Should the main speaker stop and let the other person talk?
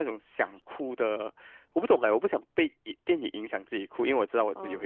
Yes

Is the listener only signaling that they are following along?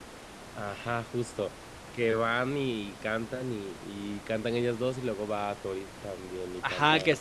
No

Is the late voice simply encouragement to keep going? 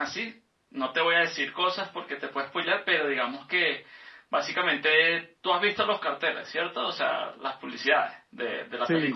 No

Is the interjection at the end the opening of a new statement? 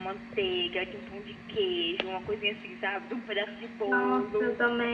Yes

